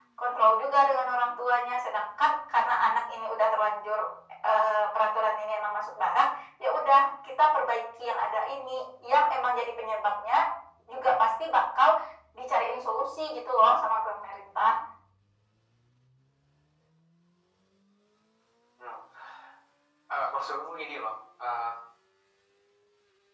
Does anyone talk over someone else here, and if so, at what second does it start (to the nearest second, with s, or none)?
none